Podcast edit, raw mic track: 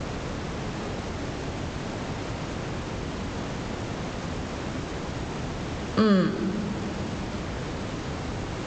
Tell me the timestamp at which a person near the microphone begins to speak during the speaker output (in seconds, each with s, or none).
6.0 s